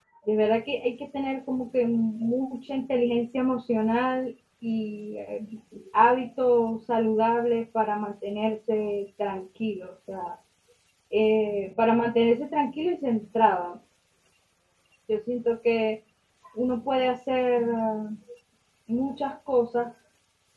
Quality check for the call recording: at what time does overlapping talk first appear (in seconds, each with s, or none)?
none